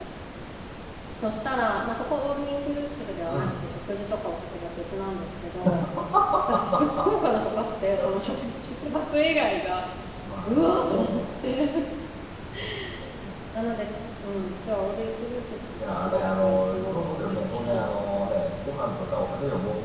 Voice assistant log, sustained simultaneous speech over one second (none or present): present